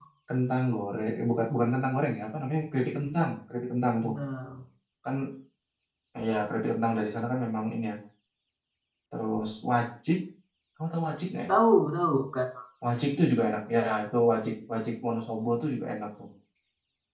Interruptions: none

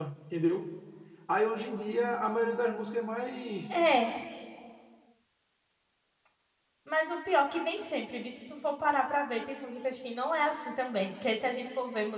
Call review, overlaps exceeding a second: none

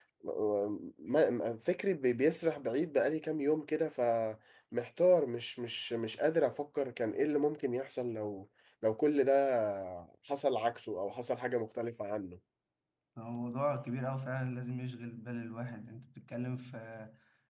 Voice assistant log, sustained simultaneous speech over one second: none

